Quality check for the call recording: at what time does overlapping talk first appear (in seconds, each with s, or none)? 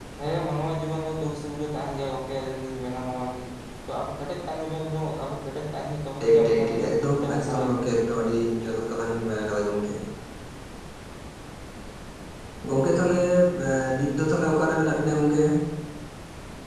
6.2 s